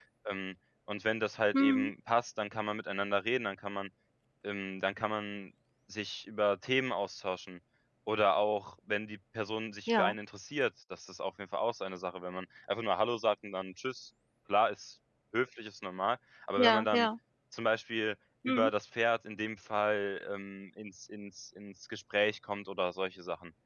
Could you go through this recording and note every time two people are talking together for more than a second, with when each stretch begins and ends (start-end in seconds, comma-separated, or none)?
none